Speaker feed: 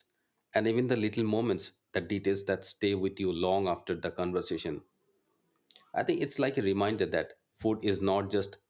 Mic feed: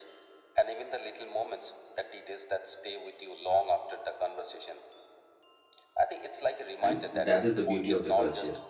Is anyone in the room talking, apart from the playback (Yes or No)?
Yes